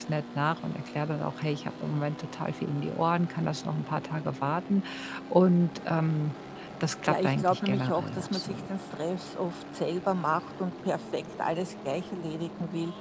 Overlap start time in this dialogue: 7.1 s

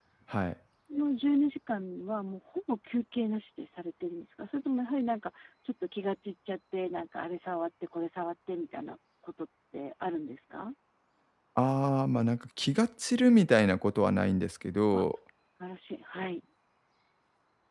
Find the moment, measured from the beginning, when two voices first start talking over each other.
none

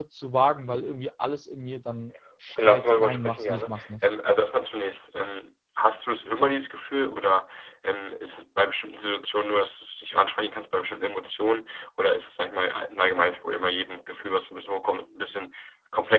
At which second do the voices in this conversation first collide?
2.5 s

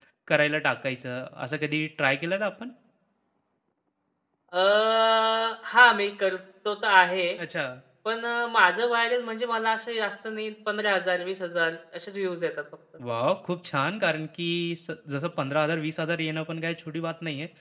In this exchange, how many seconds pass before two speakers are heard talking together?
none

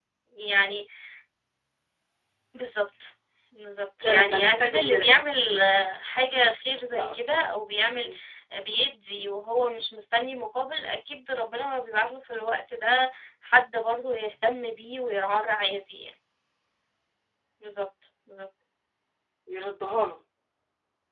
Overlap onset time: 4.0 s

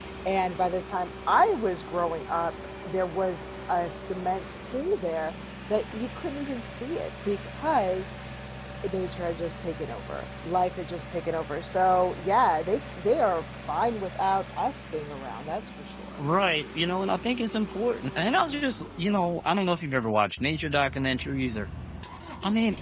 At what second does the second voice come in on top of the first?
none

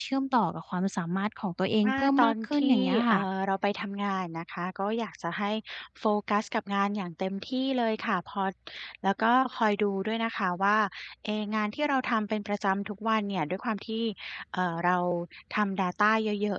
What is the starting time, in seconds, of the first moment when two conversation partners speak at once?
1.8 s

